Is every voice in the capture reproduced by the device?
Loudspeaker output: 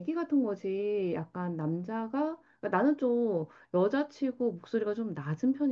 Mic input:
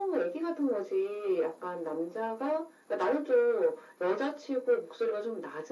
Yes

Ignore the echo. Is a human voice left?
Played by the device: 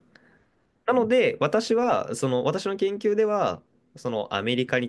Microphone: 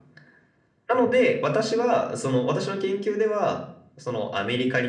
No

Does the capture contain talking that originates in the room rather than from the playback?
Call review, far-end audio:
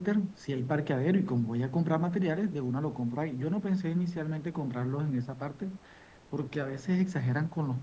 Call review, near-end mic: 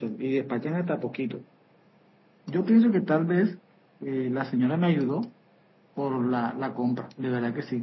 Yes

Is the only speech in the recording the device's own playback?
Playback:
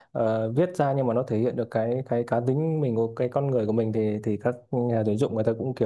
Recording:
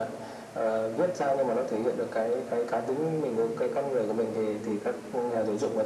Yes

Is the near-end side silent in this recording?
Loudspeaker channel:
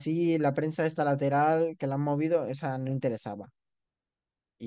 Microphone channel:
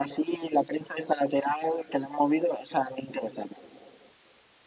Yes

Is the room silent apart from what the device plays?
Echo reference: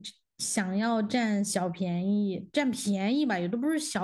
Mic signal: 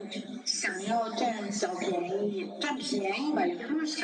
Yes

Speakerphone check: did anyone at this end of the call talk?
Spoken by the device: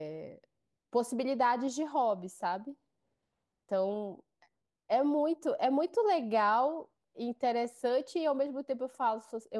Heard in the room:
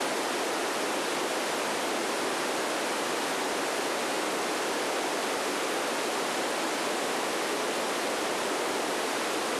No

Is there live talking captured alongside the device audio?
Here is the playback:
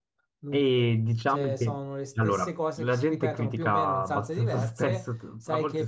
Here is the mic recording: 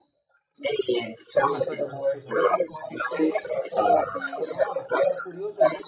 Yes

